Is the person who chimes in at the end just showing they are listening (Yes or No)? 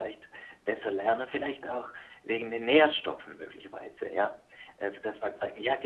Yes